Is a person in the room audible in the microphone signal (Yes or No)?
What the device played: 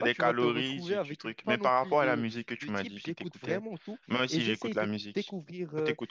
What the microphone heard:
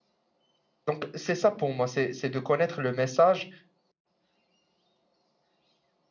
Yes